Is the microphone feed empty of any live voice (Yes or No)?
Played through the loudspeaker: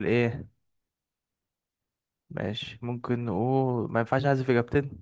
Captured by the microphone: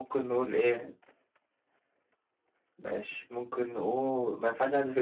Yes